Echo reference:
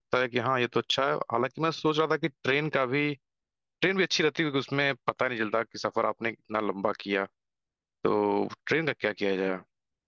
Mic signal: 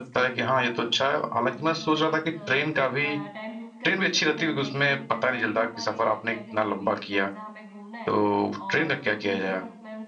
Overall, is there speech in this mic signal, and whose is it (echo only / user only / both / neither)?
both